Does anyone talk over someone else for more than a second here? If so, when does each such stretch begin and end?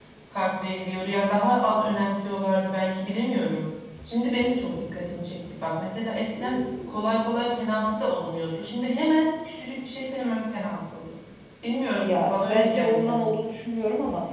12.0-13.4

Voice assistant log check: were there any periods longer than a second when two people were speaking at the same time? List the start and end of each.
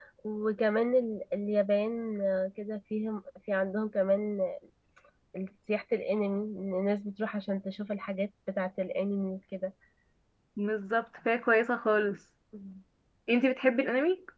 none

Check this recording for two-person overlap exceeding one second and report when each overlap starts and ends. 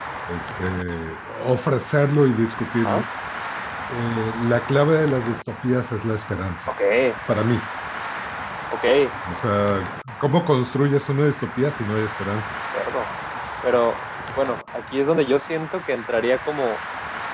none

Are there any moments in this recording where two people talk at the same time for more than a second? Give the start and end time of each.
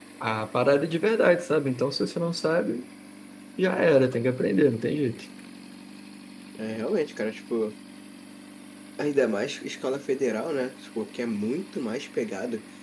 none

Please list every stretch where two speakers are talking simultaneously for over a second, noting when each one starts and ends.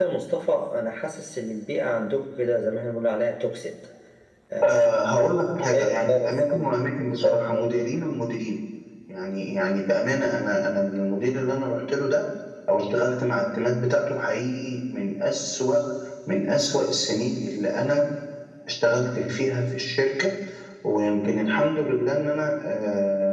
5.6-7.7

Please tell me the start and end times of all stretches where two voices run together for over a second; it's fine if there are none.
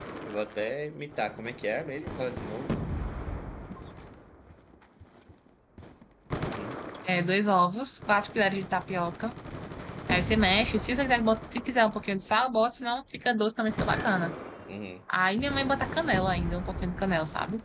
none

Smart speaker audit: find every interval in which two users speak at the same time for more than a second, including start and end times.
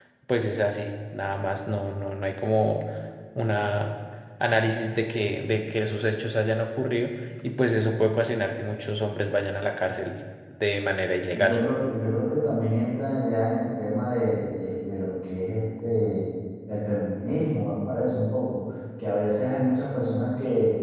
none

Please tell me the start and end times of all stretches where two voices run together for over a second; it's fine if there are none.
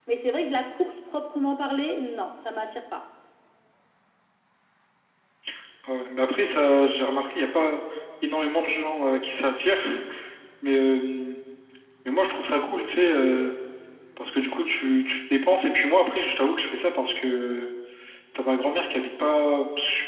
none

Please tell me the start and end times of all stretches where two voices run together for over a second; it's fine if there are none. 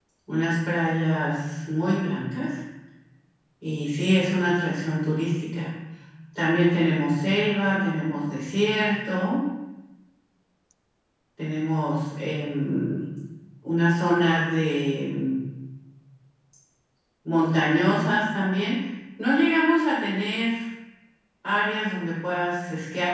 none

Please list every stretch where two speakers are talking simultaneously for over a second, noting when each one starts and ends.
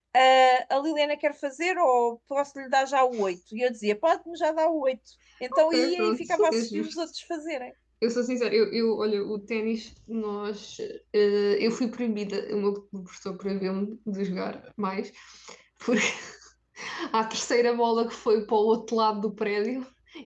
5.5-7.0

